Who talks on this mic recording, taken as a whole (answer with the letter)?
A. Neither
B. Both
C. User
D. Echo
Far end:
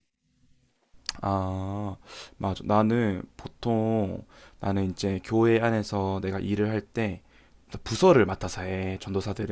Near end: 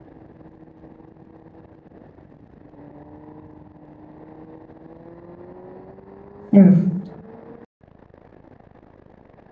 C